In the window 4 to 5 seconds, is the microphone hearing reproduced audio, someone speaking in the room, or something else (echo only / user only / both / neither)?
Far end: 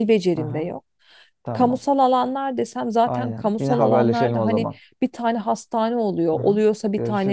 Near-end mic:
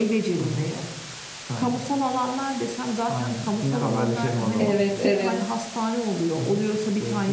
both